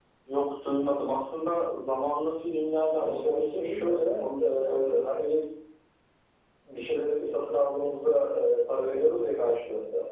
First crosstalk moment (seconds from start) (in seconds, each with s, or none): 3.0 s